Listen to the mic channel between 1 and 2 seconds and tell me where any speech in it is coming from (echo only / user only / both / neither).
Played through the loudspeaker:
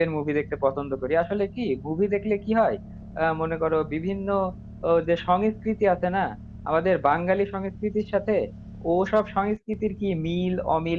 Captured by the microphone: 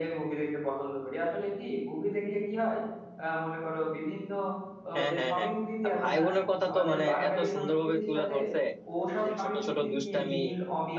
echo only